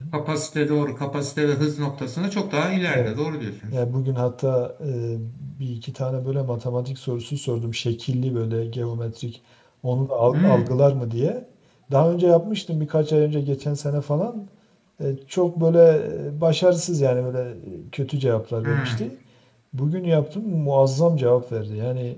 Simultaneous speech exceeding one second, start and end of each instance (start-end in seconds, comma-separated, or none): none